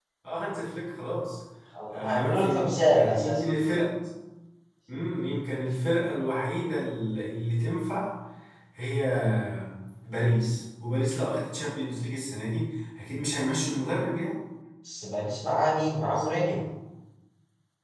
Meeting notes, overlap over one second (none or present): present